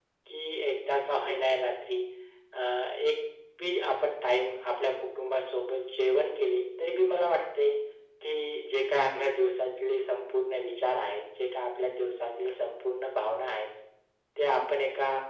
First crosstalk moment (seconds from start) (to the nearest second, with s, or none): none